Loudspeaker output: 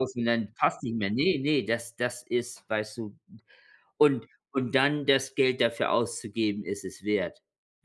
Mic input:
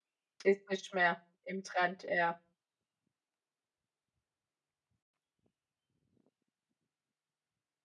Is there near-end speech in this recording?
Yes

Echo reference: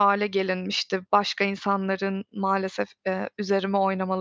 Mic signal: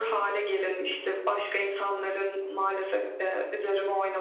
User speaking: No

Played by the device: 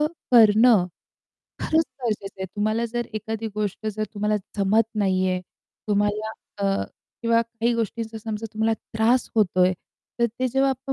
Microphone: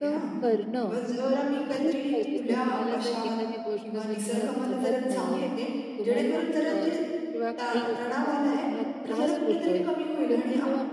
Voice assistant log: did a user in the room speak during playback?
Yes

